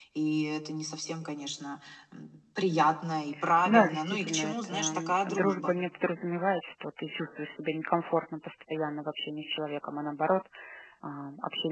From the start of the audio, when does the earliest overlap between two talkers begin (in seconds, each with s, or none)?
3.6 s